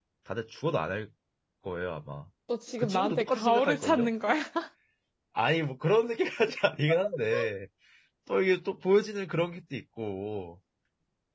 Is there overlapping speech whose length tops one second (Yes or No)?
Yes